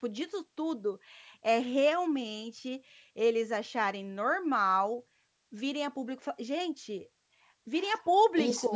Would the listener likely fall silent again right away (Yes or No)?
No